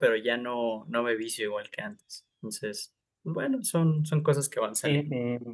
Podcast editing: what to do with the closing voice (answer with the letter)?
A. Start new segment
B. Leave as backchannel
A